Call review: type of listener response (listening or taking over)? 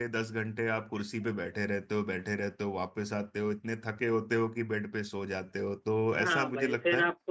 taking over